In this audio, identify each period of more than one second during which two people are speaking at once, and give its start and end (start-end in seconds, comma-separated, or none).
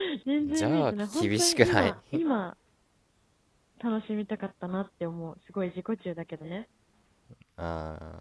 0.5-1.9